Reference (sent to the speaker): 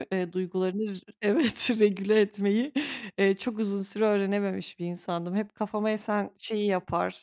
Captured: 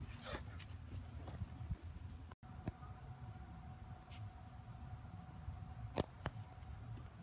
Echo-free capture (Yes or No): Yes